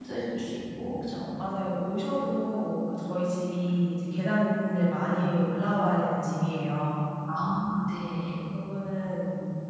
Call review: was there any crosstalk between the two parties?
No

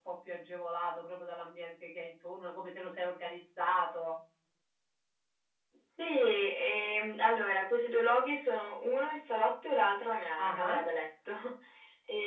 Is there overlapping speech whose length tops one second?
No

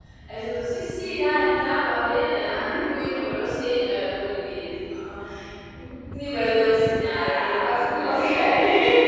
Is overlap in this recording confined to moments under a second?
No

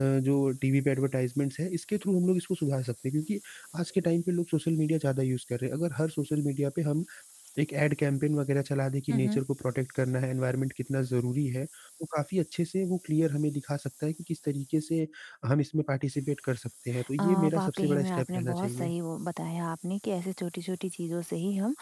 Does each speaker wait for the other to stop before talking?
No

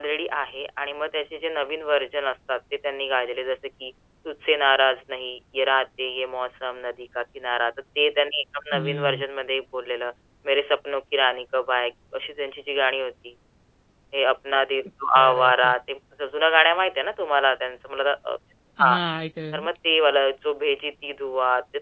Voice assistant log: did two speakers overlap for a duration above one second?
No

